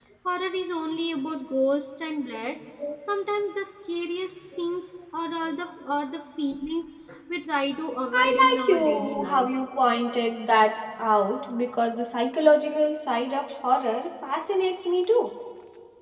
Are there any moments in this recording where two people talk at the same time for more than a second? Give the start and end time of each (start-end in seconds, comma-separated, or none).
8.1-9.5